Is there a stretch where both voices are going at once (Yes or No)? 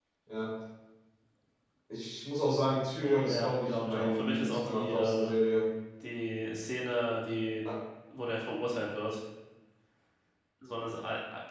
Yes